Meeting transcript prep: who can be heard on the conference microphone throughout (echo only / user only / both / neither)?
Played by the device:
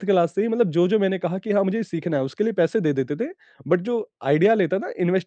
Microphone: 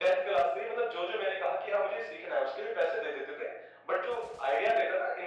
echo only